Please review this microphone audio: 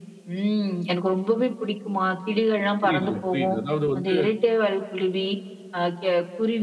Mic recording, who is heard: both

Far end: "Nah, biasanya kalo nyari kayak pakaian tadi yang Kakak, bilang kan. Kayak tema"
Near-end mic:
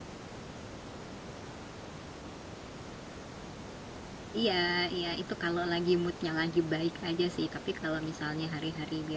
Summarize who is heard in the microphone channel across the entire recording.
user only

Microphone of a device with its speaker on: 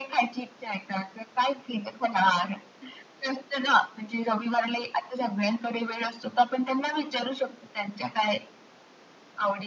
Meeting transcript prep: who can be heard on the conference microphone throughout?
echo only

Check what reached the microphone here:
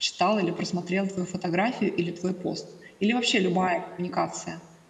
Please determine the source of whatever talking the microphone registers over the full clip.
user only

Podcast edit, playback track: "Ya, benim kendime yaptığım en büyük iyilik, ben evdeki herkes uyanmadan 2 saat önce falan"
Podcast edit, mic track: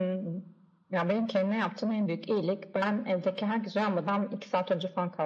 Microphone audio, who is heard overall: echo only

